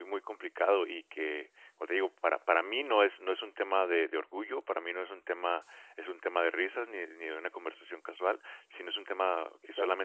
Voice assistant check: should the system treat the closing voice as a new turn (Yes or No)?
No